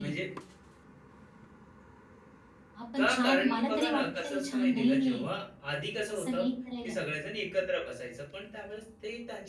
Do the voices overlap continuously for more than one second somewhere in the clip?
Yes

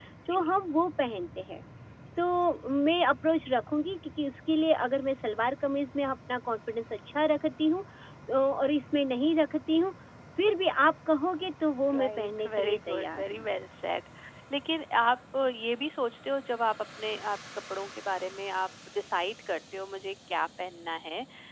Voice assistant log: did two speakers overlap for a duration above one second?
Yes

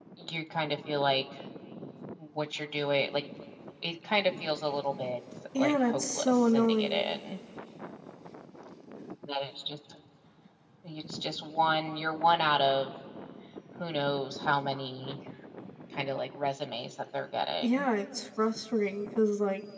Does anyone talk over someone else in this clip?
Yes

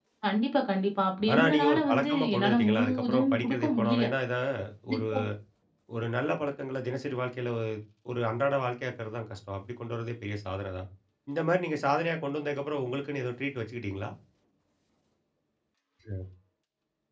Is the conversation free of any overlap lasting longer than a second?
No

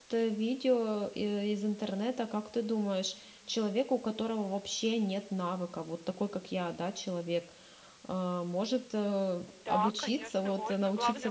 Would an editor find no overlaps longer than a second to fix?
No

